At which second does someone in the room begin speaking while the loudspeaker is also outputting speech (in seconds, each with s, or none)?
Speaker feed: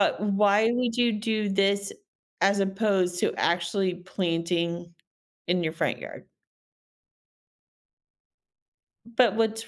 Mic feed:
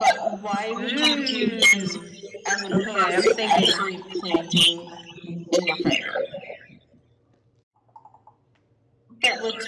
0.8 s